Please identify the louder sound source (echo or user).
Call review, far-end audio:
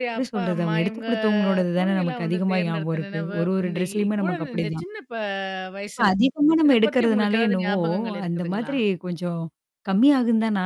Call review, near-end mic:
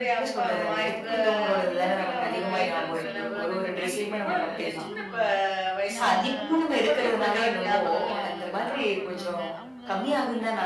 echo